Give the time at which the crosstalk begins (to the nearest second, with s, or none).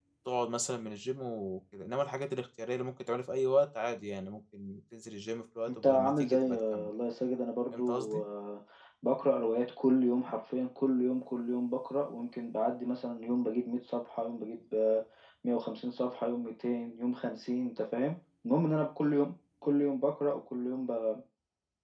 6 s